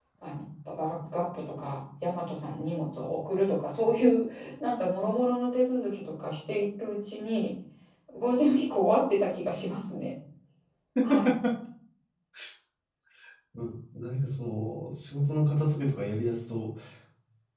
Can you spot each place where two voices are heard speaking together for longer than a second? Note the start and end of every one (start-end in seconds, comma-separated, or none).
none